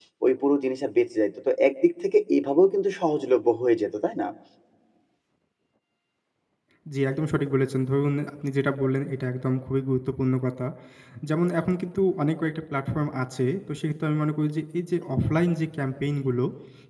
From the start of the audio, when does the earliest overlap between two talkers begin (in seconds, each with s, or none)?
none